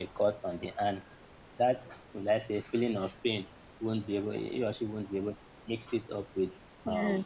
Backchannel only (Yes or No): Yes